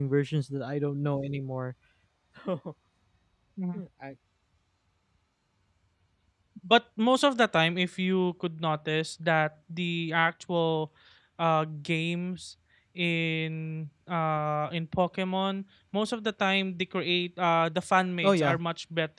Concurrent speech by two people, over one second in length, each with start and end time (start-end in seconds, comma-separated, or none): none